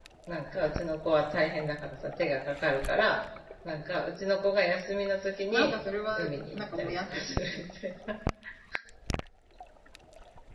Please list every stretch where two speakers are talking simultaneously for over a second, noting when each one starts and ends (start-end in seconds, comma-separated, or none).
6.2-7.6